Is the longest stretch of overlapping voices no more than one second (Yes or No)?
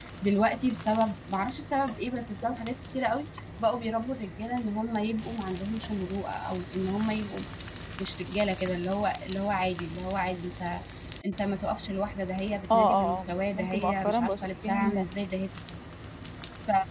No